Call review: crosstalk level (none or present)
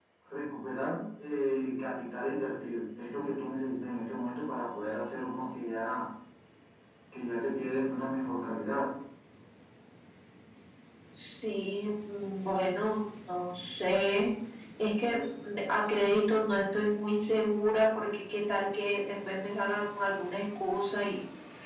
none